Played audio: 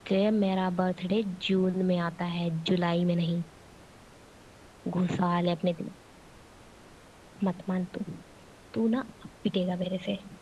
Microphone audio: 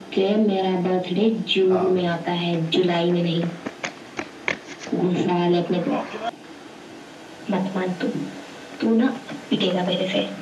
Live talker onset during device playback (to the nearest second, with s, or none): 2 s